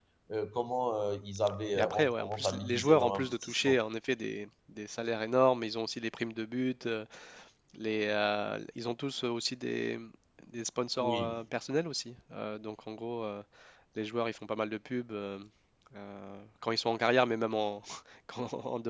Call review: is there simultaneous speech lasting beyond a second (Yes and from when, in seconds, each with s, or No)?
Yes, from 1.7 s